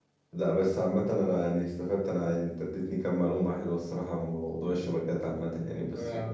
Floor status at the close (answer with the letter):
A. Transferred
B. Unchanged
B